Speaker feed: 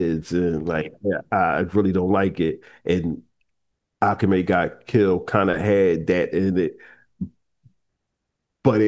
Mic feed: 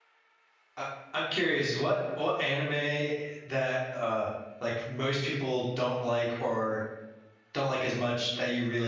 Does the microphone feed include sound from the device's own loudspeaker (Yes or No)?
No